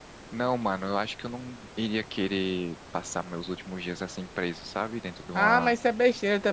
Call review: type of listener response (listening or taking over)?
taking over